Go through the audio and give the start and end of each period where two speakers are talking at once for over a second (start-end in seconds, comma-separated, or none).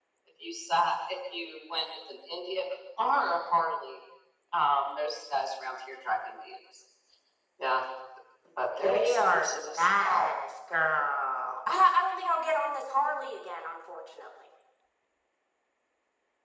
8.6-10.3